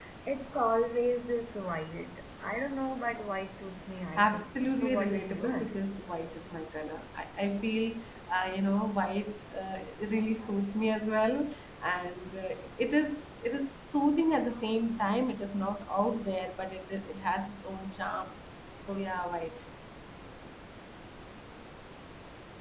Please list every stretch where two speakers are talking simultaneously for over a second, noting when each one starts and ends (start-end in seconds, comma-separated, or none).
4.2-5.8